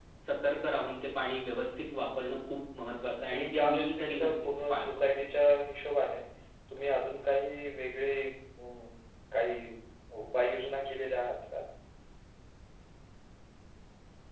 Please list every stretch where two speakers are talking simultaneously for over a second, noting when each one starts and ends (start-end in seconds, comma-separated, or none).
3.3-4.9